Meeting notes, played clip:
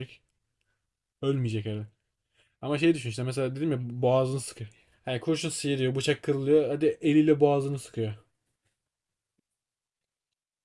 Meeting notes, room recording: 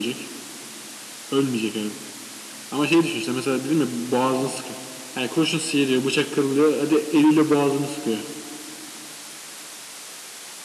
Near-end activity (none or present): none